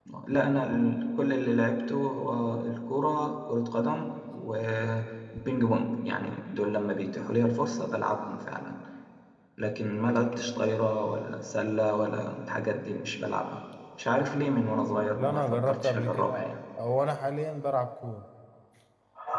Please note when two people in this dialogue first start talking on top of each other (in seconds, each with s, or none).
15.2 s